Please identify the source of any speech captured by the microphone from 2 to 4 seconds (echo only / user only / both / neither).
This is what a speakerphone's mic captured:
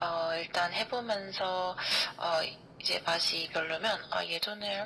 echo only